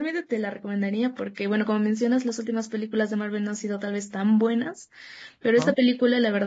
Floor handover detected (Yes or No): No